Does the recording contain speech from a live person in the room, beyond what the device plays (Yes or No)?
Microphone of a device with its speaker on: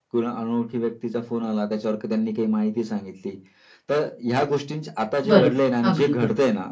Yes